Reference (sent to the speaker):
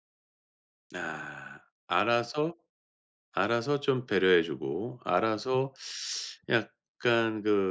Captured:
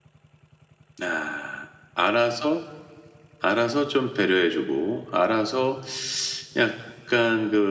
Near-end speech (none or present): none